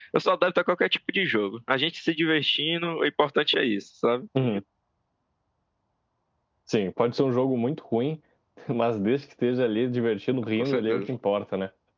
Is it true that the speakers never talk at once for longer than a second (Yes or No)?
Yes